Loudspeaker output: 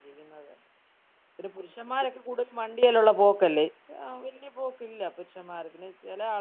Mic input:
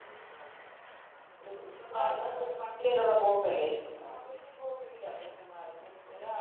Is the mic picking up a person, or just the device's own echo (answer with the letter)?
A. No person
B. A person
B